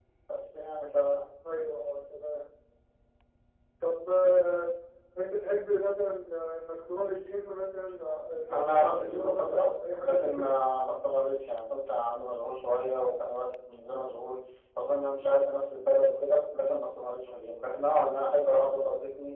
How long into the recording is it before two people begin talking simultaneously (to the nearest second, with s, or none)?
8 s